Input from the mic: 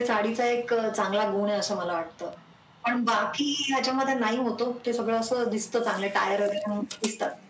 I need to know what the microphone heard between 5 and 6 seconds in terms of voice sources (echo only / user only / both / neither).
echo only